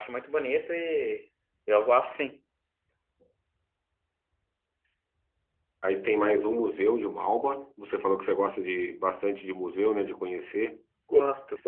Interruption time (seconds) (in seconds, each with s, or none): none